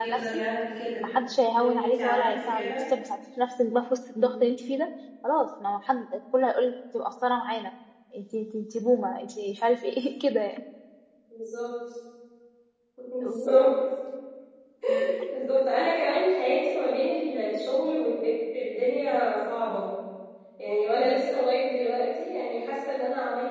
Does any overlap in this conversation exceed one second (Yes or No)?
Yes